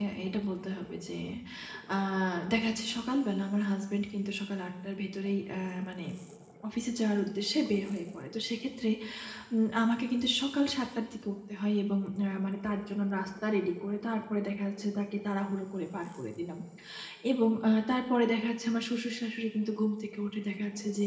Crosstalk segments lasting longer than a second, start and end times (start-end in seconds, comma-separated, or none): none